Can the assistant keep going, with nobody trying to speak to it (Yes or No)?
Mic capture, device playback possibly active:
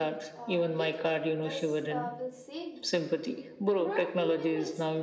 No